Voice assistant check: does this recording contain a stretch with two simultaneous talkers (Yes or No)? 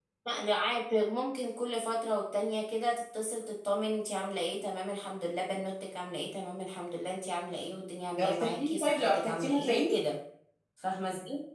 Yes